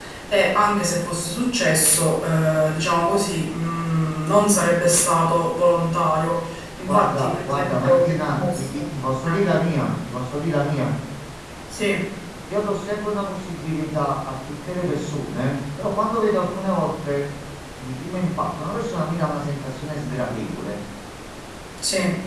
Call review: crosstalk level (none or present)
present